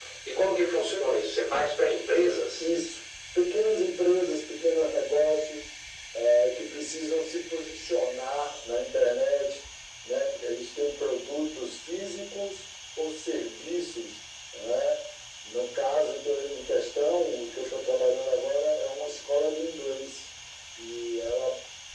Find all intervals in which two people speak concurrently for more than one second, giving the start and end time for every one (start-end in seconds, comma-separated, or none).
none